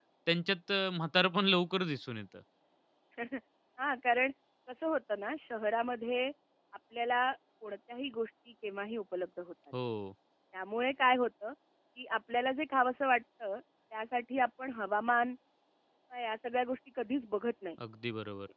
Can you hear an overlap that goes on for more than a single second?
No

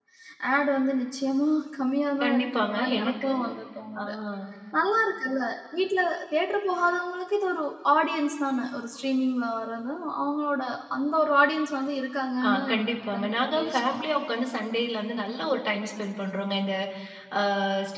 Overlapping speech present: Yes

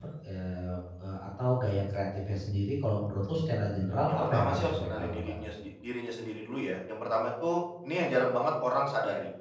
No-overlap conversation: No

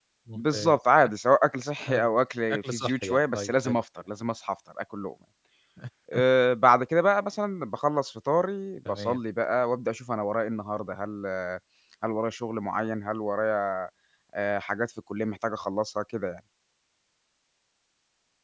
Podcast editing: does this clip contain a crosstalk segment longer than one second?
Yes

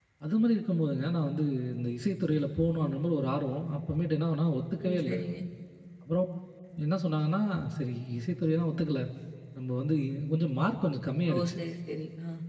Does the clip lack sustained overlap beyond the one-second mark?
Yes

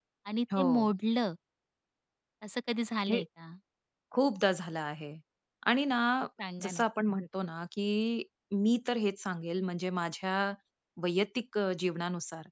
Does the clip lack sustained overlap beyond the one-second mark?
Yes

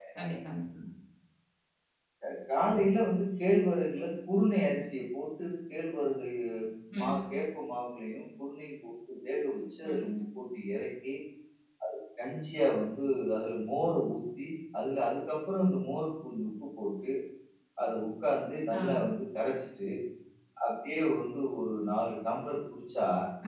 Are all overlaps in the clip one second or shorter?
Yes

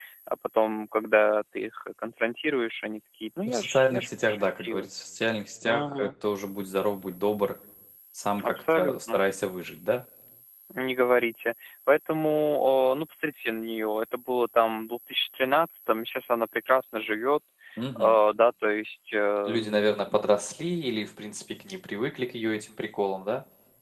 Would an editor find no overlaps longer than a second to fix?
No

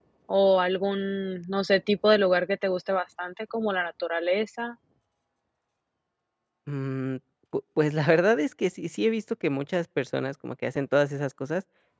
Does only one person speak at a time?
Yes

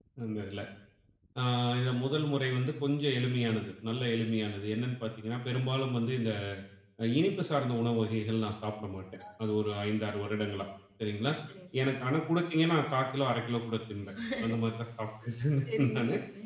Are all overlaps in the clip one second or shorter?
Yes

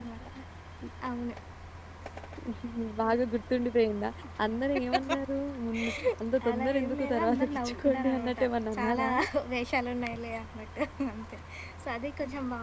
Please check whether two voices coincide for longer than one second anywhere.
Yes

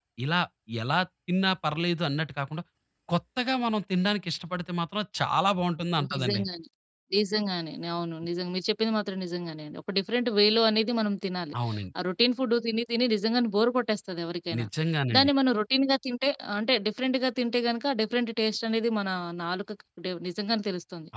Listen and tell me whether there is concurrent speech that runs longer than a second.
No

